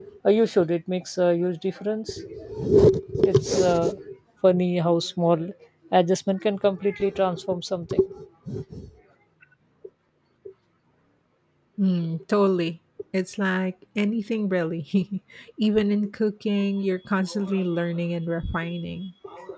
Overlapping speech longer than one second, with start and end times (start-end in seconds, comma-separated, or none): none